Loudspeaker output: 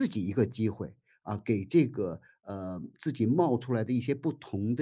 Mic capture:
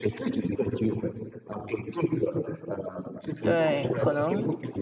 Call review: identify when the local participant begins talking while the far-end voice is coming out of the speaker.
3.4 s

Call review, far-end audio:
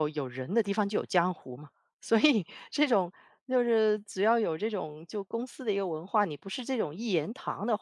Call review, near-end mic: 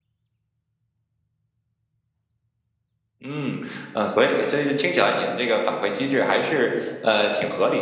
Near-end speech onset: 3.2 s

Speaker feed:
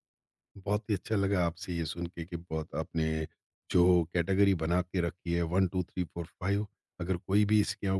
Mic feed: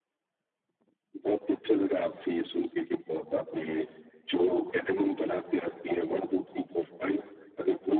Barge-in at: none

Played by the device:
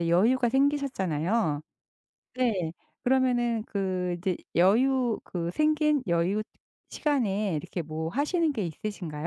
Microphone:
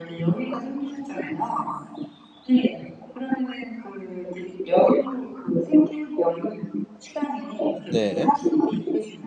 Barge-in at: 7.9 s

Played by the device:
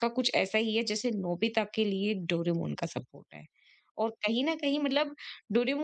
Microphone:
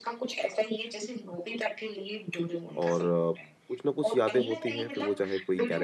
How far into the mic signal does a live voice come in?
2.8 s

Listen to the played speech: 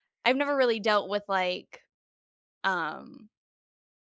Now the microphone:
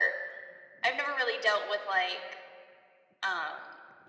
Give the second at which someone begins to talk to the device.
none

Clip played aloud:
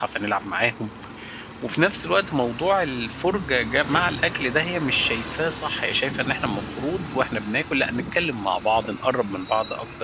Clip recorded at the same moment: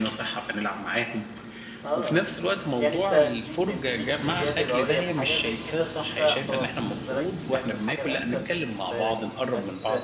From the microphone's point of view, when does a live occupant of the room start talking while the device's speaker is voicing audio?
1.8 s

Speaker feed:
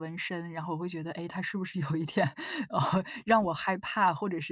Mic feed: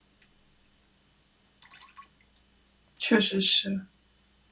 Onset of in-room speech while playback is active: 3.0 s

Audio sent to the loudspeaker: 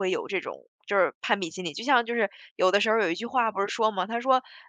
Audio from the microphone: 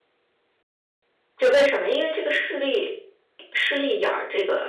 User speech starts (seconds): 1.4 s

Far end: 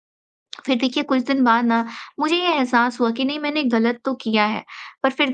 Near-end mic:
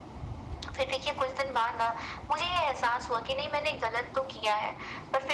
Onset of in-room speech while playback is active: none

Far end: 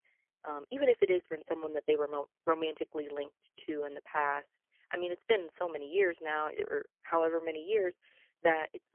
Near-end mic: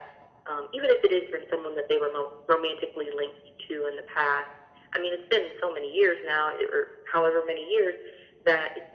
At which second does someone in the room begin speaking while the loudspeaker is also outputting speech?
none

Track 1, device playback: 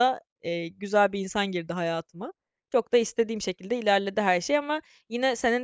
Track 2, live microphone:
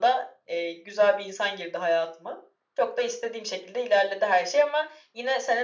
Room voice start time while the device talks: none

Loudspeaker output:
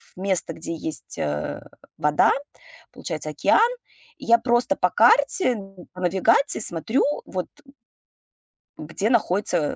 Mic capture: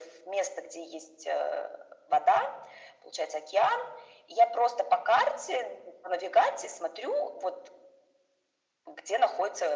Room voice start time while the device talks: none

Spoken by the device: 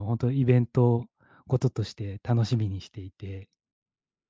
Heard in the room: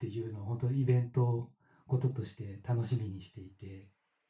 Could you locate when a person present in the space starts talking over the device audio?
none

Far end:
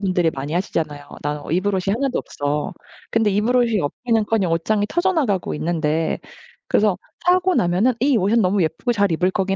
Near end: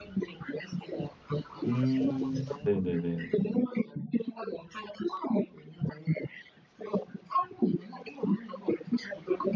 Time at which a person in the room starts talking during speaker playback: 1.6 s

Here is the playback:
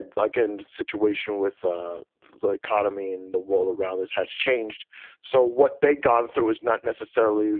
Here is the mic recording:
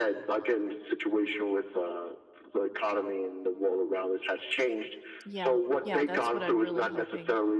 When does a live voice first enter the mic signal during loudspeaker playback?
5.2 s

